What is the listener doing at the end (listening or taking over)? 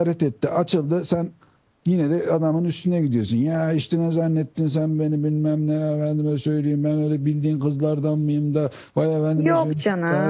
taking over